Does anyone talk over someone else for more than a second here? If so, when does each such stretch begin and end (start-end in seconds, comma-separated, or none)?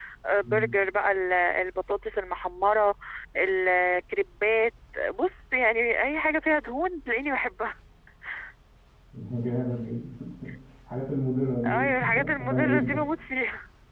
11.7-13.0